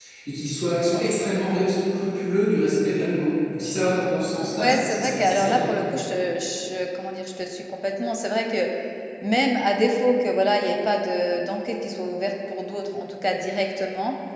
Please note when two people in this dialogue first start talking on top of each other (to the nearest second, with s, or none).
4 s